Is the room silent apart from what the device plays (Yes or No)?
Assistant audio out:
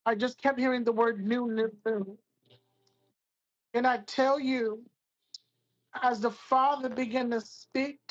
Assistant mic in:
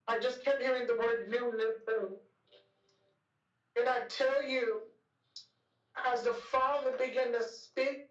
Yes